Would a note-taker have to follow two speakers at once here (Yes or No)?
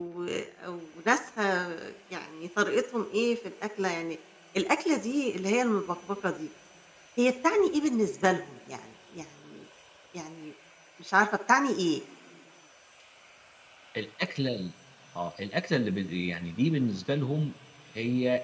No